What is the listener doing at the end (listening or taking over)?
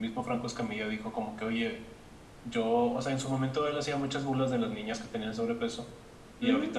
listening